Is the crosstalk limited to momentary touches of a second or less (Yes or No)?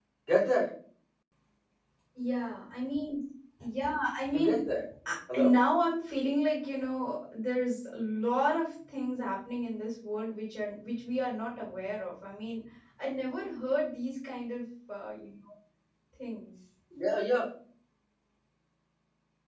Yes